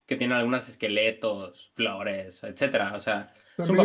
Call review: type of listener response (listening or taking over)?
taking over